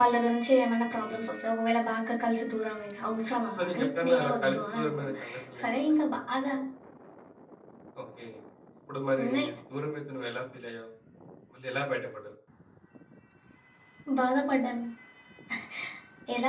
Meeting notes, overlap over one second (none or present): present